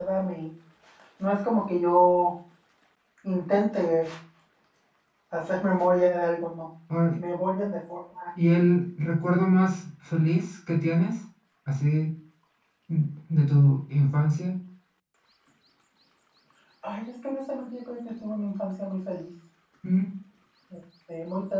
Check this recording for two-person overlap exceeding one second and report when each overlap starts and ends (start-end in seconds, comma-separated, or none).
none